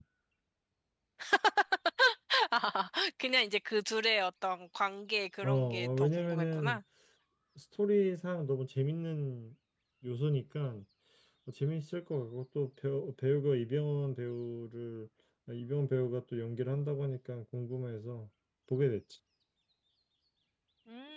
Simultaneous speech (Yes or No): Yes